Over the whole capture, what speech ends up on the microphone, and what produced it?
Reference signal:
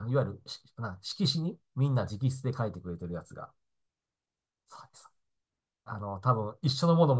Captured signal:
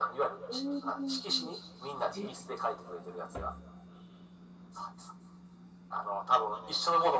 both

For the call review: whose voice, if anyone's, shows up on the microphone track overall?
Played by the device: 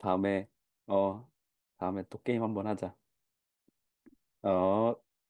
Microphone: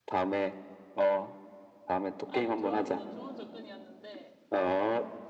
both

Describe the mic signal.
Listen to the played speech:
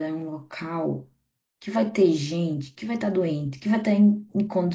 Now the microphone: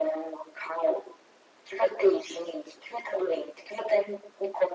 echo only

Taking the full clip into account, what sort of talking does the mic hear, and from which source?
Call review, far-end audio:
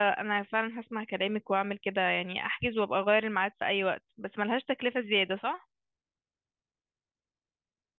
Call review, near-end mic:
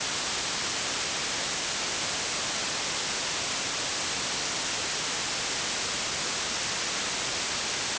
neither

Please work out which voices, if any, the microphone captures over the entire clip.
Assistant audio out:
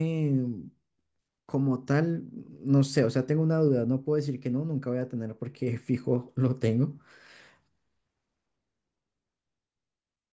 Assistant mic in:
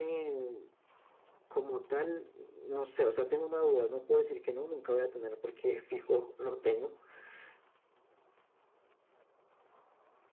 echo only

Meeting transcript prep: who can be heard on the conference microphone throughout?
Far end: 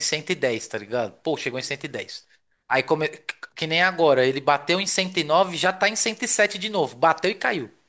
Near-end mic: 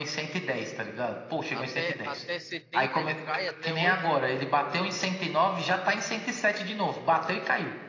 both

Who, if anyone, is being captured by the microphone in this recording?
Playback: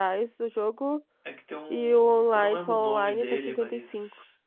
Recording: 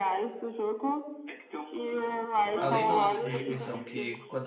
both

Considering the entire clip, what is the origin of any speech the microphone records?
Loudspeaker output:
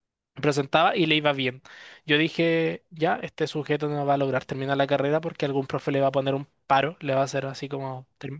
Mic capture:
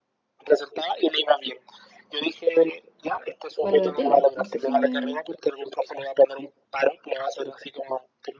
both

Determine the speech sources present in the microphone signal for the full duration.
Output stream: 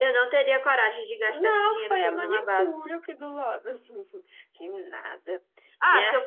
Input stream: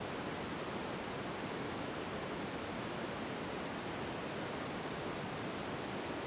neither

